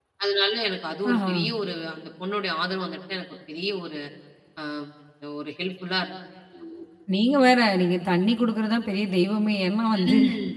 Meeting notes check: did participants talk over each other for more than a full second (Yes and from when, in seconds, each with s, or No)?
No